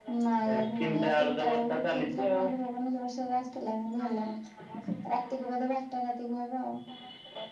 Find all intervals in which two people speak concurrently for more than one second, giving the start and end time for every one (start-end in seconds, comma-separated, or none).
0.5-2.5